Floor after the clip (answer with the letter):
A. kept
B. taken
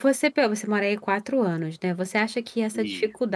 A